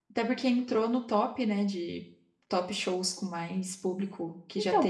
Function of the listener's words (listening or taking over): taking over